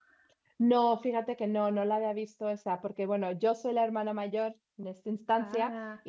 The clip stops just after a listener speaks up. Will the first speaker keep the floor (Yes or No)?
Yes